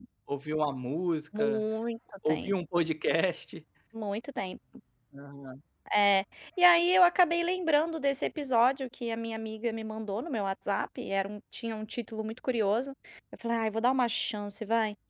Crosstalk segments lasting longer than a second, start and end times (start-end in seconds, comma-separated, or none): none